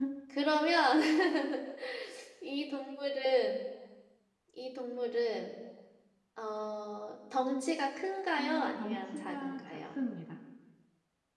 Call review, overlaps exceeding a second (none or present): present